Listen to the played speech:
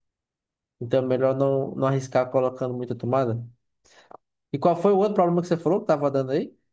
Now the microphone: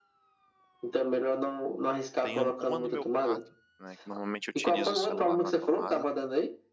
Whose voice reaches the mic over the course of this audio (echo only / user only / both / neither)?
both